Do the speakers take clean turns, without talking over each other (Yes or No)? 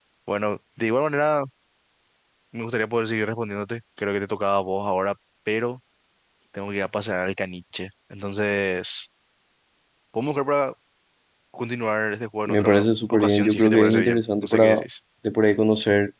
No